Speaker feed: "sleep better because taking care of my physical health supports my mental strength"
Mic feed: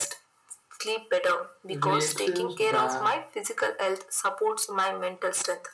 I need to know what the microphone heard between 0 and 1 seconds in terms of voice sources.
echo only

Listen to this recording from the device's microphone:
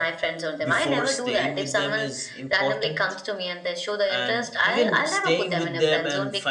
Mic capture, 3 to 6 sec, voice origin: both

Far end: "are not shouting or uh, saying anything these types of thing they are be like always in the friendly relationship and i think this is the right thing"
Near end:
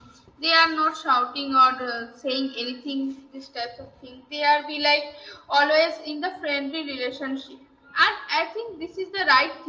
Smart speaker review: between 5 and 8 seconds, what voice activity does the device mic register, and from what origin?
echo only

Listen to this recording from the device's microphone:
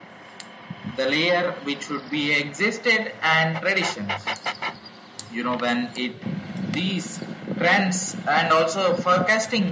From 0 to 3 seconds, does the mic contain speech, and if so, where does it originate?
echo only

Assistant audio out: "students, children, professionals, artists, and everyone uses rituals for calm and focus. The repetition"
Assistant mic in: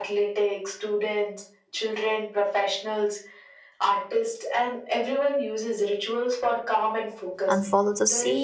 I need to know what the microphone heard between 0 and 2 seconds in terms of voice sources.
echo only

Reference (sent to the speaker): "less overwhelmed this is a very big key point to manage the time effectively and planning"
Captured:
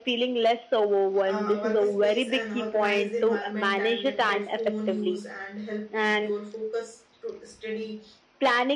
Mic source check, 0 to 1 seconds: echo only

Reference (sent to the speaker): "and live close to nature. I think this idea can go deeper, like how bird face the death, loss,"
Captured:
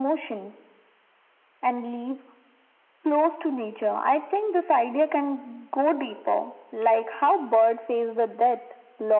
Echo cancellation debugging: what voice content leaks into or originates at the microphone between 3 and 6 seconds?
echo only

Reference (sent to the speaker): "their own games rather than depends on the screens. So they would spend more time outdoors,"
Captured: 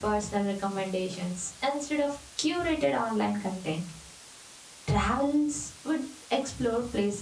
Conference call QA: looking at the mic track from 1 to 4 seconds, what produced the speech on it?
user only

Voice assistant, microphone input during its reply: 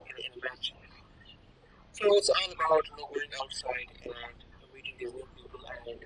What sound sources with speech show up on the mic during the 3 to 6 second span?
echo only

